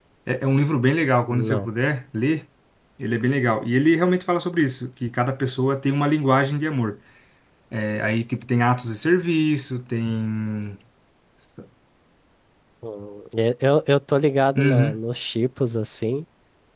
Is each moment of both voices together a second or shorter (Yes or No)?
Yes